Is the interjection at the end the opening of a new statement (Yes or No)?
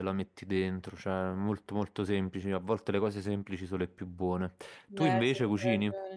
Yes